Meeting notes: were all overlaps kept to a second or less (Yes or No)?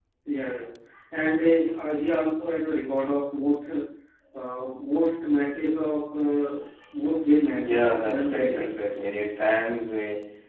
No